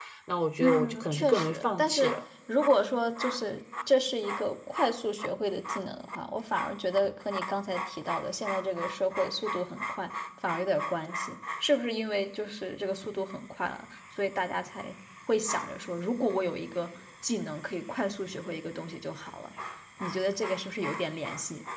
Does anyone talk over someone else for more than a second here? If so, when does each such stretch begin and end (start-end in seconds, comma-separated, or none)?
0.6-2.2